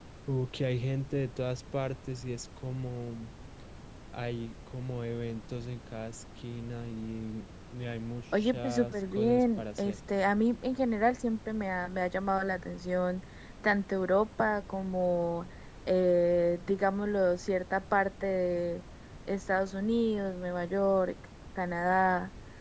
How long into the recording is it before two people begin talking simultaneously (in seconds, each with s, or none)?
8.3 s